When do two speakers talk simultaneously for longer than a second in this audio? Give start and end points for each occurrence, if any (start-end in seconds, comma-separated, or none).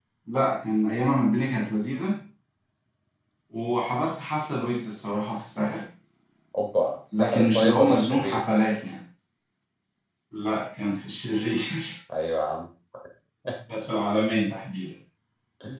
7.1-8.4